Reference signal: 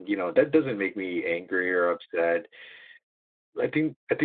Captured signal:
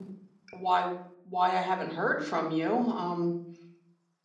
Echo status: none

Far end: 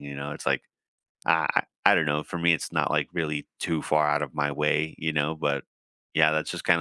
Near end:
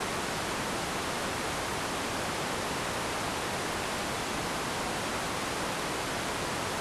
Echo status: none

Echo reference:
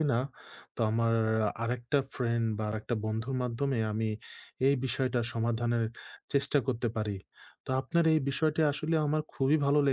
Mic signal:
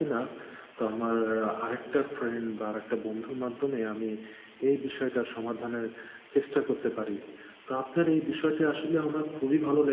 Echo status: present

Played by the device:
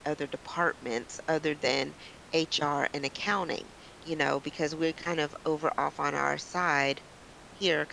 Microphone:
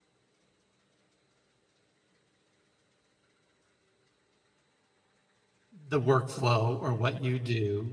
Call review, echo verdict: none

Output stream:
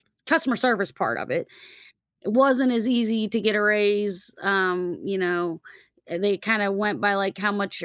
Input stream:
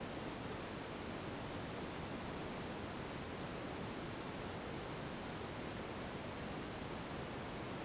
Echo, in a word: none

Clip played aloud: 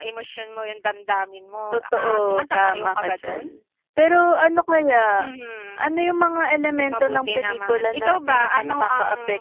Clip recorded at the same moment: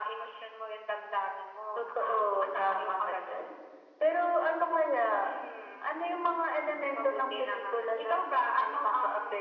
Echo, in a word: present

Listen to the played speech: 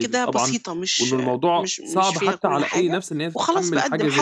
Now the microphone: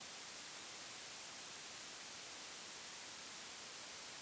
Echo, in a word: none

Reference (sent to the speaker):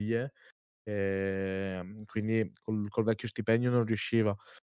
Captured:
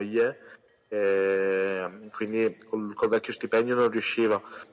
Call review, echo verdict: present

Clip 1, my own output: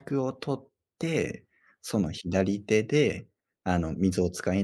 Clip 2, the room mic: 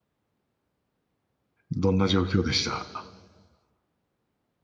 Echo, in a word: none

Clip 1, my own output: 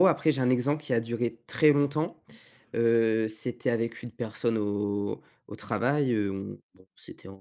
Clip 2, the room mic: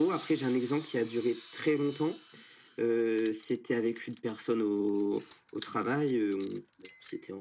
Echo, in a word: present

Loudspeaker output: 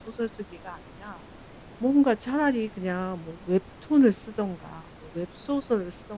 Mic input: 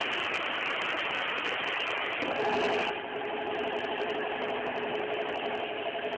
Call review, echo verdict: none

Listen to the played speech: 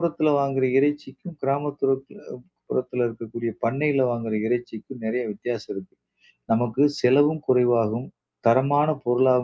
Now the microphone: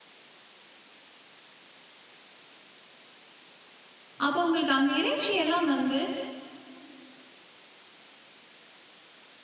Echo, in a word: none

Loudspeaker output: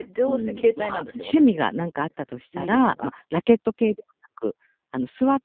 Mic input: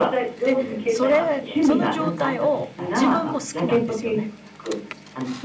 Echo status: present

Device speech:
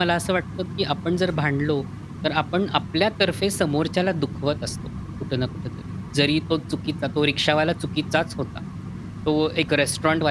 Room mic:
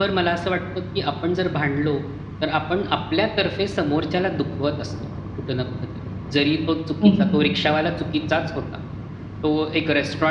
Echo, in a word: present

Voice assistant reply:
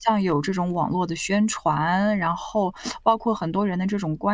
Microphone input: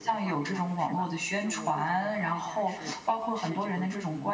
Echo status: present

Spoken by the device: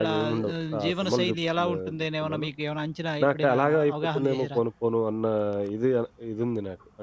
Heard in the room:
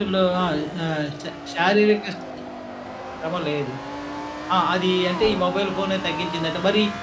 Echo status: none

